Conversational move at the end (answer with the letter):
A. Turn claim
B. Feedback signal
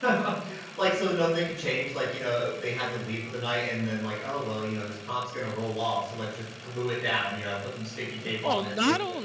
A